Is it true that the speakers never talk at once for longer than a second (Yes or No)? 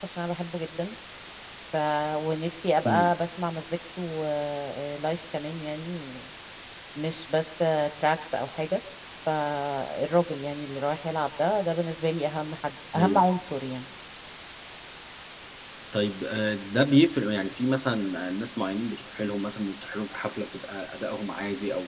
Yes